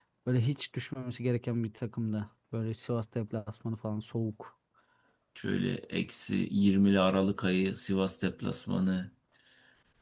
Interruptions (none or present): none